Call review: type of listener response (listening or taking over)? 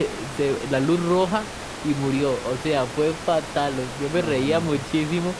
listening